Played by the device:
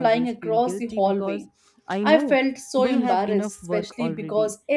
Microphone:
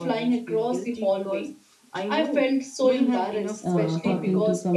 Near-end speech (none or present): present